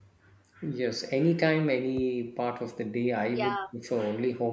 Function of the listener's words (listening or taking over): listening